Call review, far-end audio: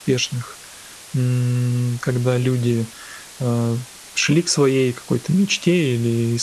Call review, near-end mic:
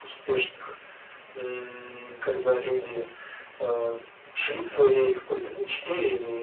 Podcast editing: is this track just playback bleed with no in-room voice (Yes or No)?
Yes